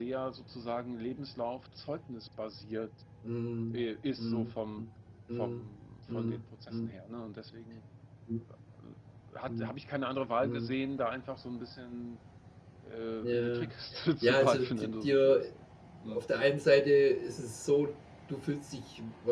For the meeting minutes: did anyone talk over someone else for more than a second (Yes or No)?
Yes